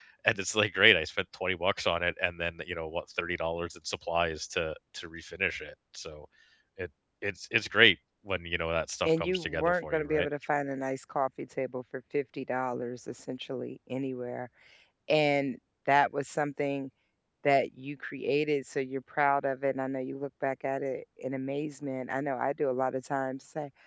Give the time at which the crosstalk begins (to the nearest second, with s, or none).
9 s